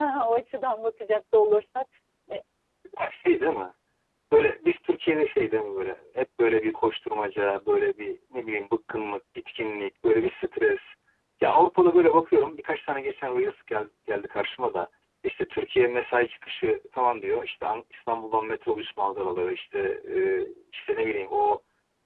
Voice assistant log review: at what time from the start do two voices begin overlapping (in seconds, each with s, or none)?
none